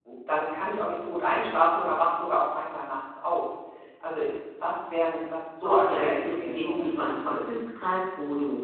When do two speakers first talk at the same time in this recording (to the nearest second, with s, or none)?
6 s